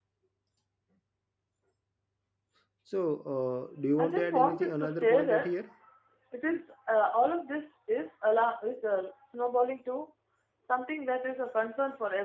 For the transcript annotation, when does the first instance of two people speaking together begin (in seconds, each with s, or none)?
4.0 s